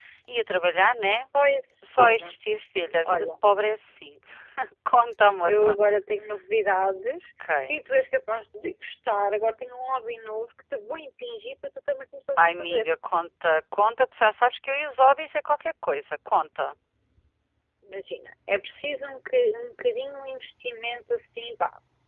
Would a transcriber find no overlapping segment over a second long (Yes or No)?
Yes